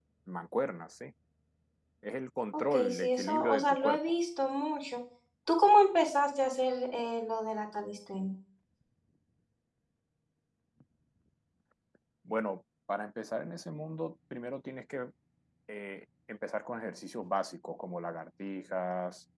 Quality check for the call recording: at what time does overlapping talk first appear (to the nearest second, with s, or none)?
3 s